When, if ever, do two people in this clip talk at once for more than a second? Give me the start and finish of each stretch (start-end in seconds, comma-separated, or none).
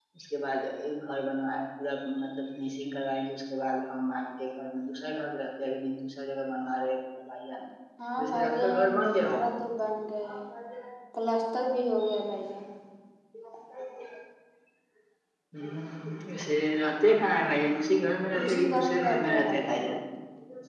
8.2-9.5, 18.4-19.8